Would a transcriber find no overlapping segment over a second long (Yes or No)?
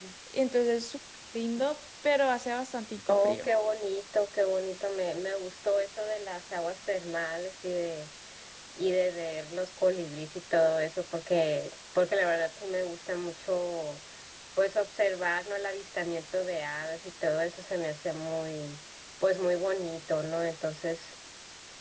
Yes